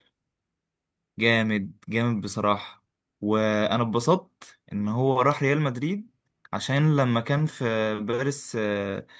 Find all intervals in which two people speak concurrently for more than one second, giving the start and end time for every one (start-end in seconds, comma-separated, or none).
none